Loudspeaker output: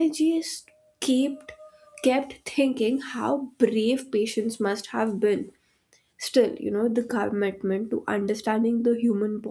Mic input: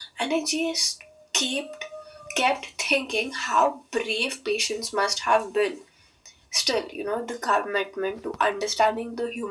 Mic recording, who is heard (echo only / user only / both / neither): echo only